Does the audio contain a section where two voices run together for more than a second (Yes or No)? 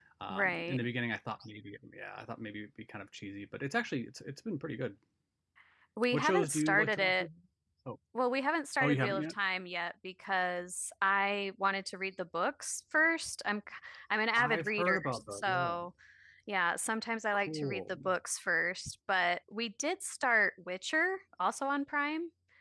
Yes